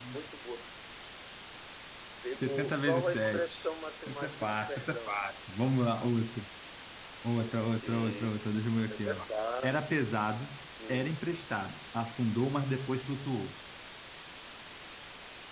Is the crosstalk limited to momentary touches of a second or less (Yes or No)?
No